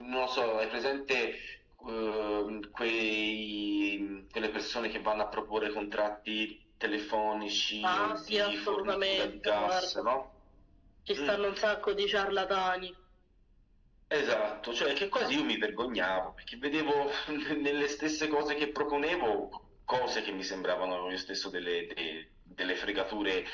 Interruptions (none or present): present